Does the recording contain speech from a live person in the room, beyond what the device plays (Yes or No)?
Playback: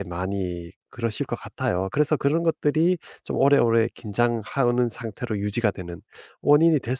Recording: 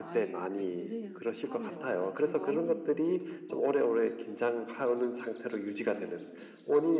Yes